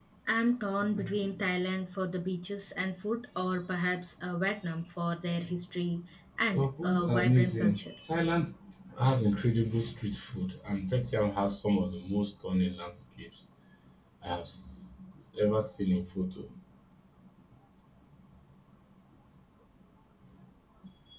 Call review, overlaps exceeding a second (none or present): present